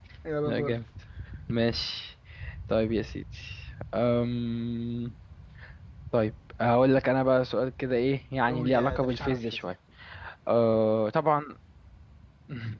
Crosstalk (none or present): present